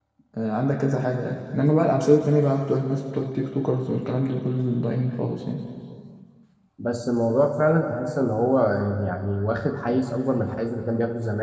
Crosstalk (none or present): none